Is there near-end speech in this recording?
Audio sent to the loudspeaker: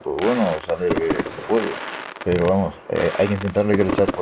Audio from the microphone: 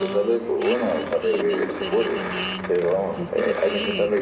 Yes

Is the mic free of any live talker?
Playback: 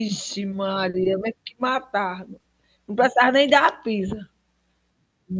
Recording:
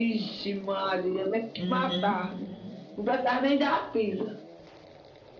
No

